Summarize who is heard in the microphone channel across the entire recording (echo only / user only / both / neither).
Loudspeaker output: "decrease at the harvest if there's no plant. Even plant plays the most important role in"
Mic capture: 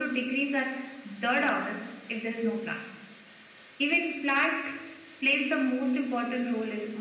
echo only